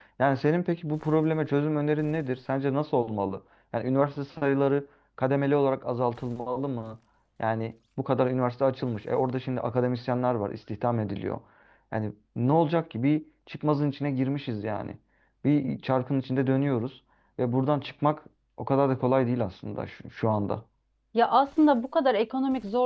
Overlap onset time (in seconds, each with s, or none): none